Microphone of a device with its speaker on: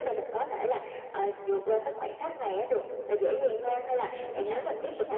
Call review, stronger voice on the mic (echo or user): echo